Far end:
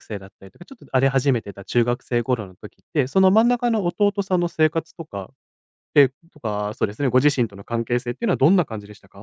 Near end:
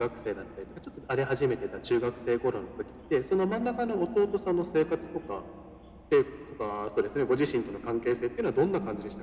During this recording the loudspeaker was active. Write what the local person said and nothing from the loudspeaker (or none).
none